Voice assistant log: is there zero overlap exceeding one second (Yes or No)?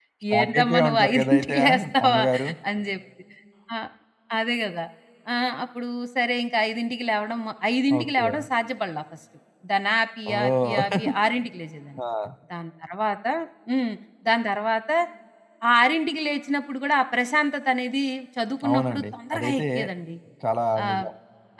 No